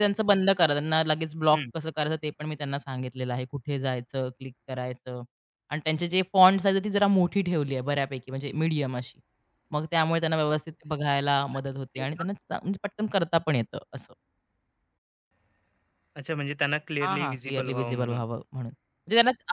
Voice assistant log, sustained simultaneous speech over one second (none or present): present